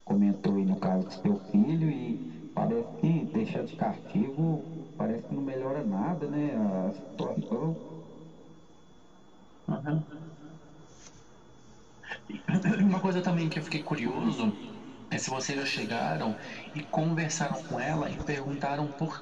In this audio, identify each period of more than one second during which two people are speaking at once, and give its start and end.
none

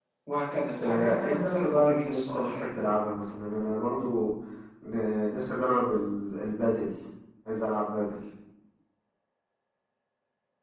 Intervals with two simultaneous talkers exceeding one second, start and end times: 0.8-2.5

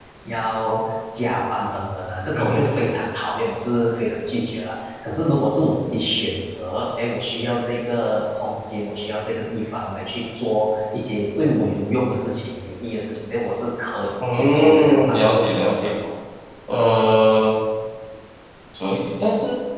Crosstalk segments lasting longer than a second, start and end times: 14.3-16.0

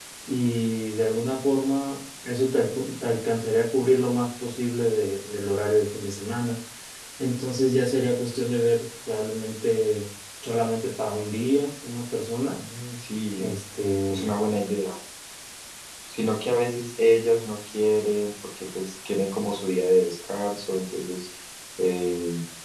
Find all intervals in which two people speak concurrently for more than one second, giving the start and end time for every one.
none

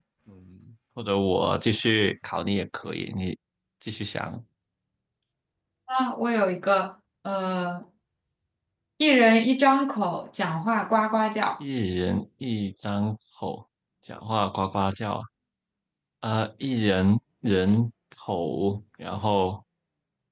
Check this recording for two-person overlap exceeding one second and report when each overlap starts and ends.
none

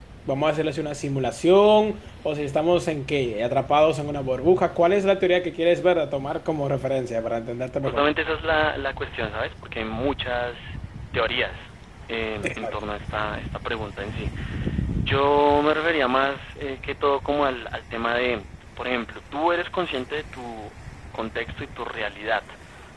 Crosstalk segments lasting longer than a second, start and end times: none

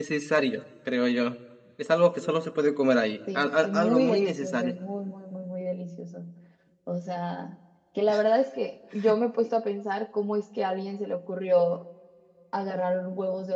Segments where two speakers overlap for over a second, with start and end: 3.4-4.7

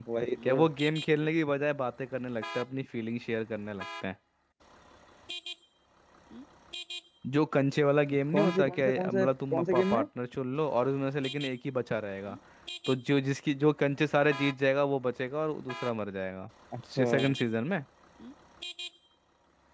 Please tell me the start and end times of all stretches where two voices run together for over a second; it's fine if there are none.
8.3-10.0

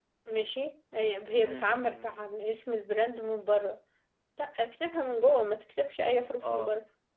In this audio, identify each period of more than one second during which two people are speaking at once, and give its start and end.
1.3-2.6

